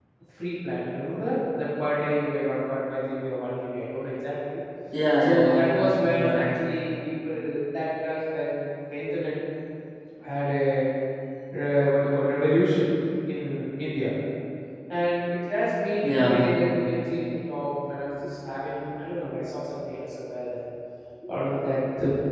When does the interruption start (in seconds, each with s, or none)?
5.2 s